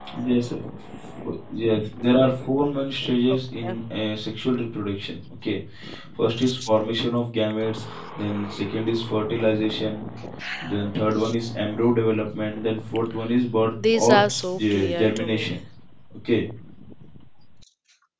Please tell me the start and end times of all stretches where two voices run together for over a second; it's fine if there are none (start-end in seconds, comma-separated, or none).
13.9-15.5